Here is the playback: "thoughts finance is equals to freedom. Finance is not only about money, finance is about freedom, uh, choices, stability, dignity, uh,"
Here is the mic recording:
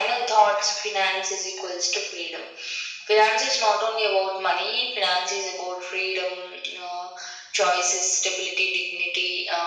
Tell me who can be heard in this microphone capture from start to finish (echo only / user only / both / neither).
echo only